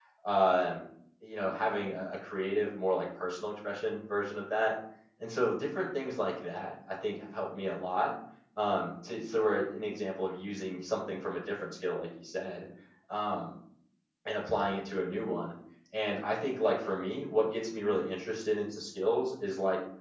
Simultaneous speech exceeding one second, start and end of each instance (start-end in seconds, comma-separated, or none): none